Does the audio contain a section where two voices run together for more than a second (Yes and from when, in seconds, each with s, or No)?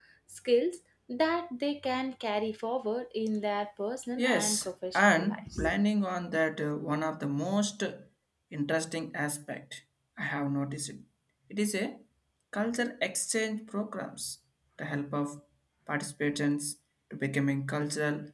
Yes, from 4.2 s